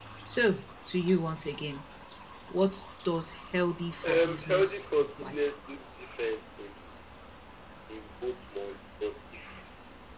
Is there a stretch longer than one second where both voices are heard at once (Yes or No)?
Yes